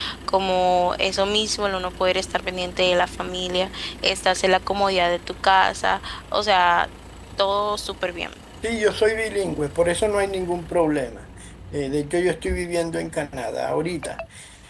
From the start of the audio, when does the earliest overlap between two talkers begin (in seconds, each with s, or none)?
none